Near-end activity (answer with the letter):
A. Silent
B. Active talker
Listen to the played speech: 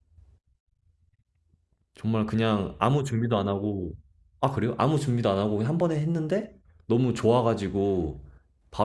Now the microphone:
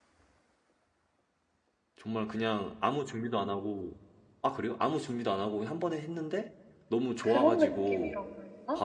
B